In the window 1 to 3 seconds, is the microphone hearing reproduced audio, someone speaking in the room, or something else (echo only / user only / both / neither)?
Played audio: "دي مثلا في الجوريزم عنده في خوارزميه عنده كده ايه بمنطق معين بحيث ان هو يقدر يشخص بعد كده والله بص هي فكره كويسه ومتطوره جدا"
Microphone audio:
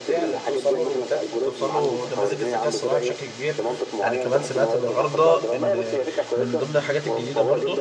both